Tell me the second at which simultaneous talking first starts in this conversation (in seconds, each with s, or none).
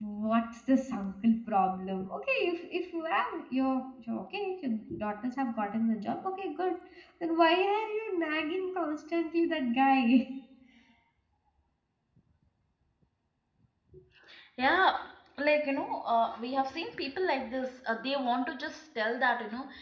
none